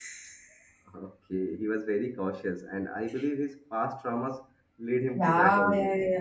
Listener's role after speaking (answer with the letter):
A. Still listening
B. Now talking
B